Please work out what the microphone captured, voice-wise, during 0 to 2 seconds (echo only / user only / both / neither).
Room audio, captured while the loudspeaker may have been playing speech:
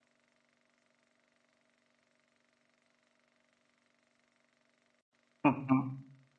neither